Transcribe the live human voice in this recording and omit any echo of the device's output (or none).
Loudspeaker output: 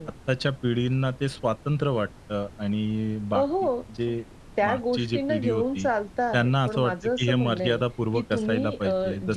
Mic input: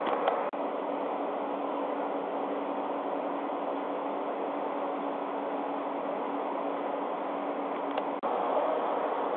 none